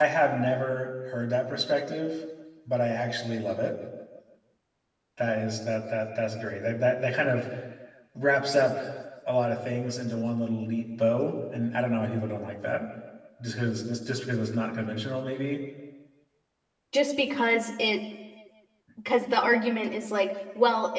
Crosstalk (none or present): none